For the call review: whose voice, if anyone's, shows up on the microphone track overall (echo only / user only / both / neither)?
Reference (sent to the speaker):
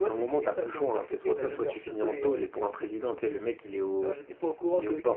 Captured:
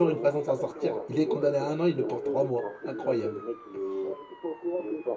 both